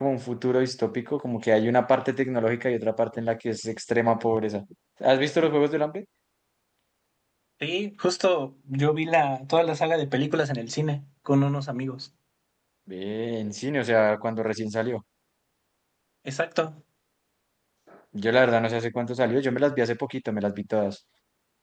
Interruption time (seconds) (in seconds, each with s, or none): none